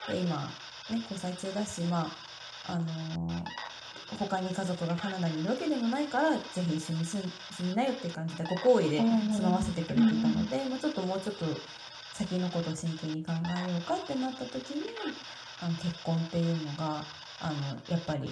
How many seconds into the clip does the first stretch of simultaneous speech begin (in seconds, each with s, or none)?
9.0 s